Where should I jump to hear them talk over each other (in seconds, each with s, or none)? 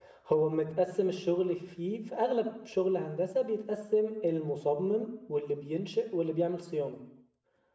none